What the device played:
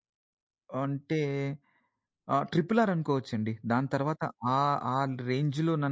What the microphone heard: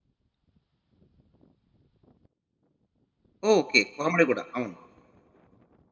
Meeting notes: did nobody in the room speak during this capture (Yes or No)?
No